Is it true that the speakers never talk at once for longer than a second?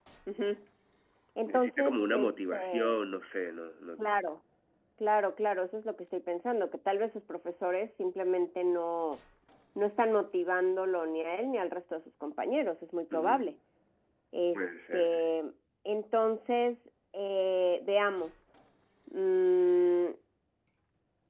No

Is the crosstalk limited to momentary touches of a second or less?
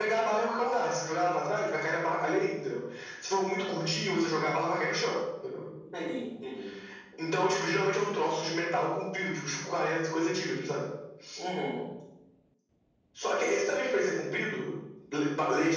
Yes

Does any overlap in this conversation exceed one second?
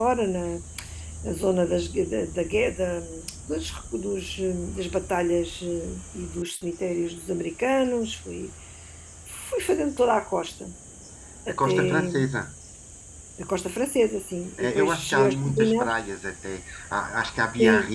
Yes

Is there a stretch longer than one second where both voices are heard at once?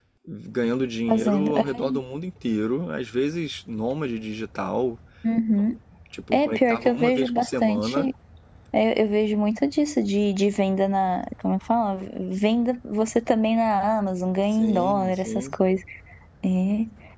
Yes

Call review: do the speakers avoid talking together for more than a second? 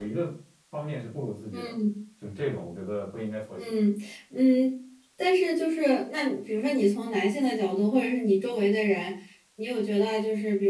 Yes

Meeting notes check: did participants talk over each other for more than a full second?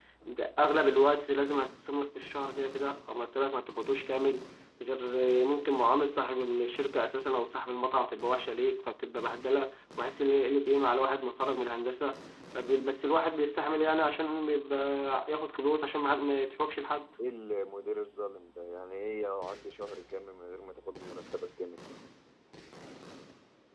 No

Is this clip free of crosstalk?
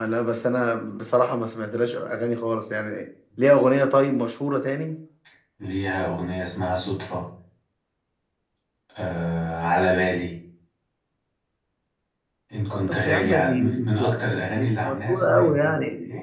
No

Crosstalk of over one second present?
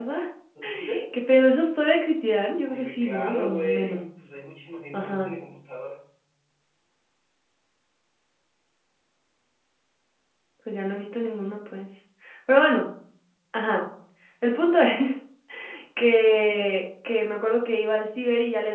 Yes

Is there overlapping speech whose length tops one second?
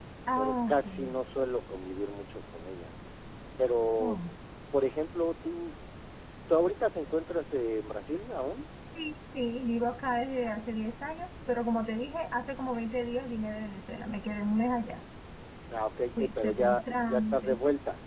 Yes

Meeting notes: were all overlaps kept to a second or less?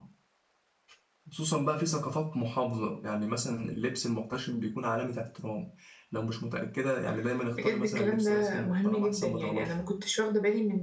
No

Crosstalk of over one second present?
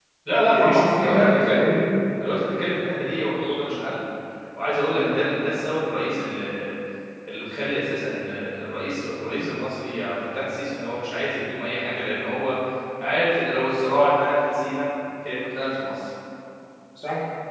Yes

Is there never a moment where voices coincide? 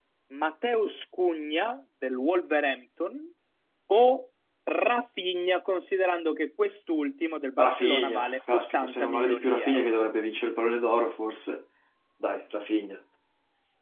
No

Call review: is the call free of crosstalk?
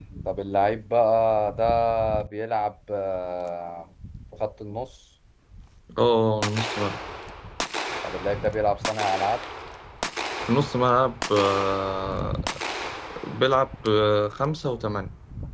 Yes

